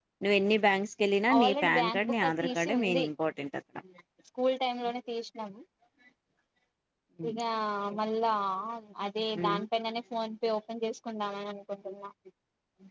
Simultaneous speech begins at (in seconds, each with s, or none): 1.3 s